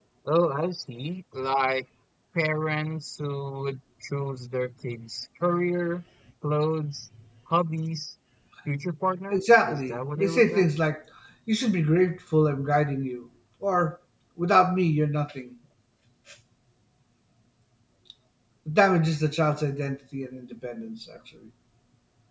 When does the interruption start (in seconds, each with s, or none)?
9.3 s